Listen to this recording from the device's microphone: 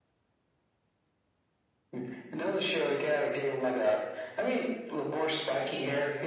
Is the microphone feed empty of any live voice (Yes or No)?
Yes